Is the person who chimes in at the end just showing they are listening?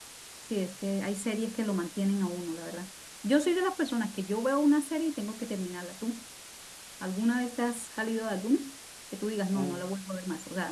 Yes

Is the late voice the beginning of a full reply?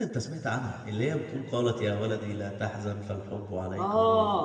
Yes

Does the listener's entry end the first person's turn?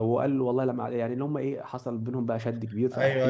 Yes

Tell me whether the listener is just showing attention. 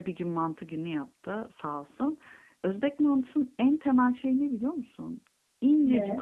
Yes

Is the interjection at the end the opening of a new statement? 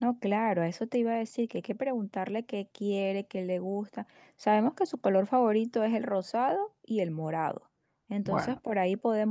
No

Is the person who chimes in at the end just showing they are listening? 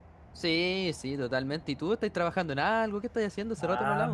No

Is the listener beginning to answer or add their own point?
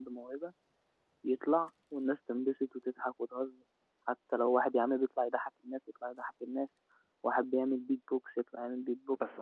Yes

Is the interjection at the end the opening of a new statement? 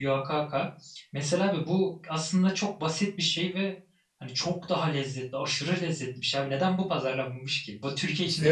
Yes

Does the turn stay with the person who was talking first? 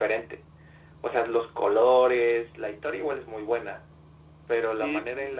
Yes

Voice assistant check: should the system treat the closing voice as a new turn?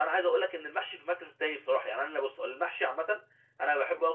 No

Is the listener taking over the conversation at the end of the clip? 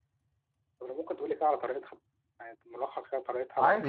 Yes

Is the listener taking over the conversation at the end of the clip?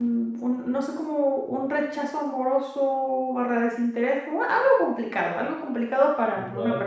No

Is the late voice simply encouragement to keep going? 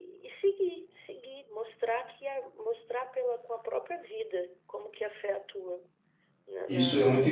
No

